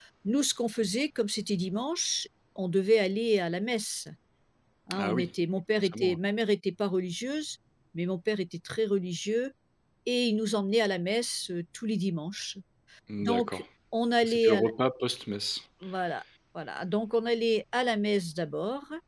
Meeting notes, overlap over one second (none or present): none